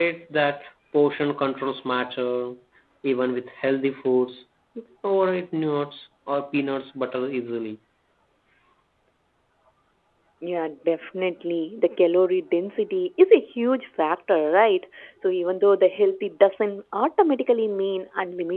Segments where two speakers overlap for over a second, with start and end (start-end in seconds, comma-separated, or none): none